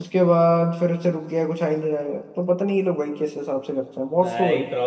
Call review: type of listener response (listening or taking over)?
taking over